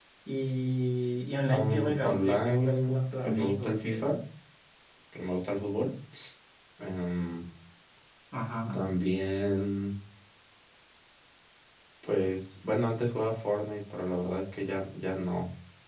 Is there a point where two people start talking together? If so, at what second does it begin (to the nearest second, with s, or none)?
1 s